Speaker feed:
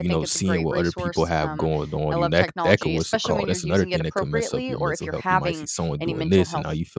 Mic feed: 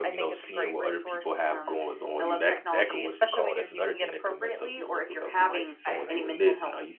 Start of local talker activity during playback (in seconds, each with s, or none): 5.9 s